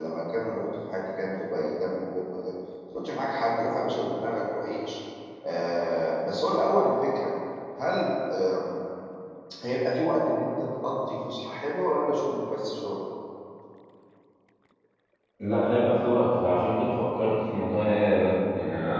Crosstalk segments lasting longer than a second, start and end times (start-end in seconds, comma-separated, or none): none